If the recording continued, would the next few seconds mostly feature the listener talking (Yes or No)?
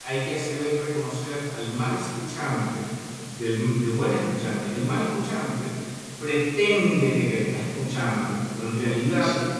No